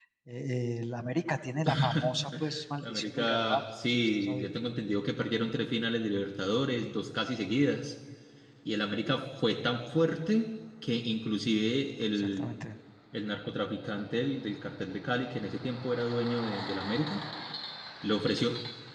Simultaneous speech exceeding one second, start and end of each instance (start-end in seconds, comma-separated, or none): 2.8-4.5